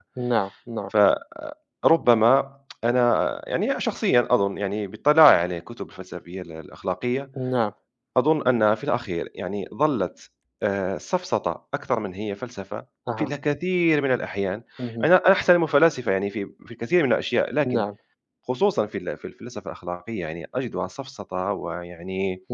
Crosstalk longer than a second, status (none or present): none